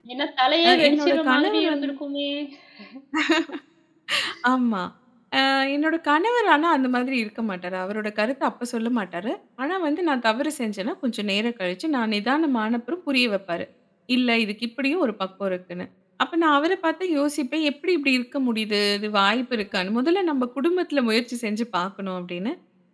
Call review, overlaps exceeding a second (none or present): present